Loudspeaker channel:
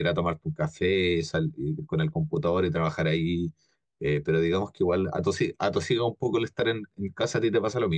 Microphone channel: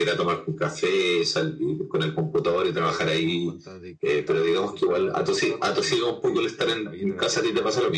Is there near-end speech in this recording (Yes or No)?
Yes